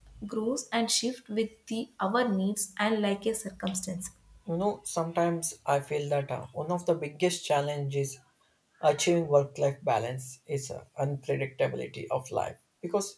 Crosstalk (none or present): none